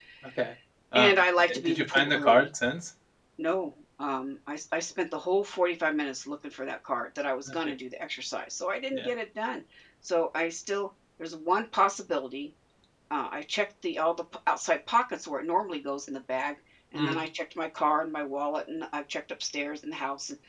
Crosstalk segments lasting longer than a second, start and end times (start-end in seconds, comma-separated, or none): 0.9-2.5